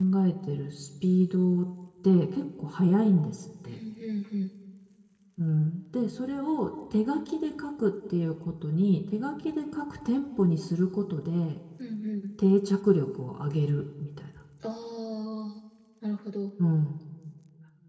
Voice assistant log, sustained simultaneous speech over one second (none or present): none